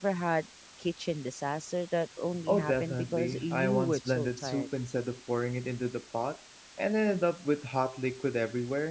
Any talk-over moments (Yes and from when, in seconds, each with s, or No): Yes, from 2.5 s